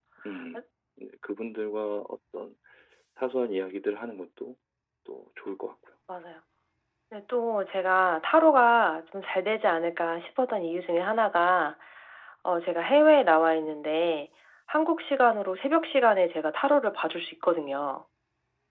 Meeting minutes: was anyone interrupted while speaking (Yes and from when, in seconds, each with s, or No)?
No